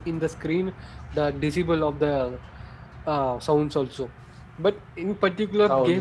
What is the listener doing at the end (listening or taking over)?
listening